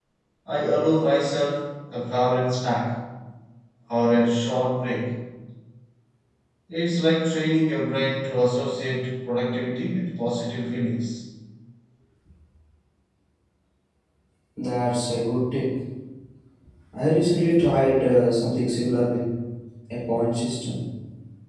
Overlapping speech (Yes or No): No